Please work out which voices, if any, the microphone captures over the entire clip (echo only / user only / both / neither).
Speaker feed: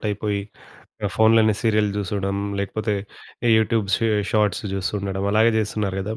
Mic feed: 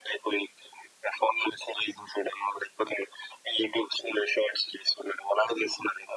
echo only